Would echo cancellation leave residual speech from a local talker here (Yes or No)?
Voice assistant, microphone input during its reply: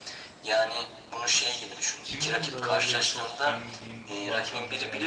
Yes